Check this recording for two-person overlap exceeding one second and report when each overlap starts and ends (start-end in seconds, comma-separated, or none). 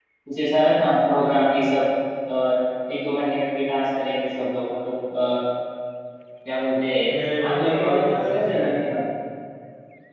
7.5-8.7